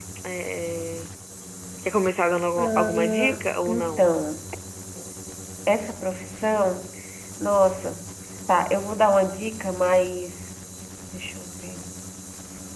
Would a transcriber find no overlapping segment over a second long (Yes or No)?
No